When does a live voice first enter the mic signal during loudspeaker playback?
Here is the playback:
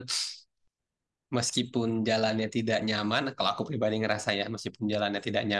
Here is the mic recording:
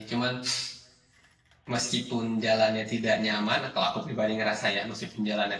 none

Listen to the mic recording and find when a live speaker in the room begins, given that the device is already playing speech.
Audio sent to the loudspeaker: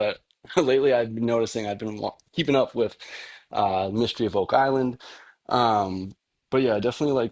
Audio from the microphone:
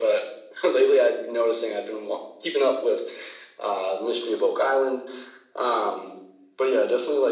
none

